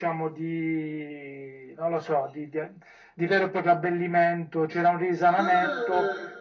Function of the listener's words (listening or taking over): listening